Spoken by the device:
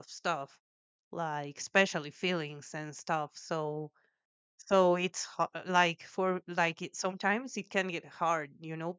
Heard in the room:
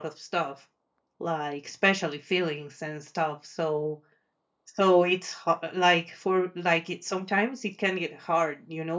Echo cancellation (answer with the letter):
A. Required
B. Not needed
A